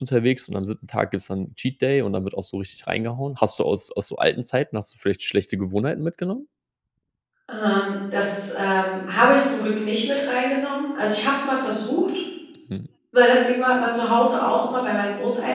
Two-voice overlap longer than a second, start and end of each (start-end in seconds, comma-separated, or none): none